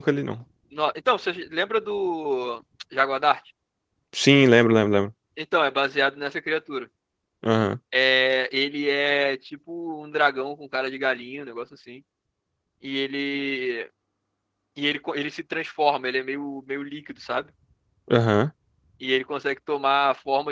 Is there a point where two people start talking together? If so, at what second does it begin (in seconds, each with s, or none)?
none